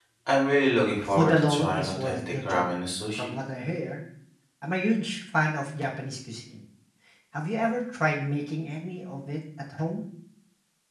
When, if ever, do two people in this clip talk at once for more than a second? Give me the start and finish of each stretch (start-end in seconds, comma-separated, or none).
1.0-2.6